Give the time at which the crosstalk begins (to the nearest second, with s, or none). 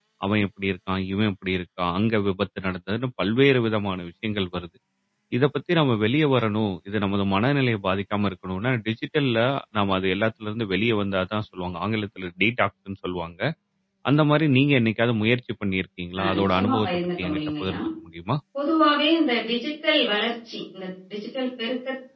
16 s